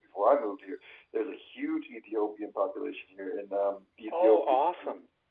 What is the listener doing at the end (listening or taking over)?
listening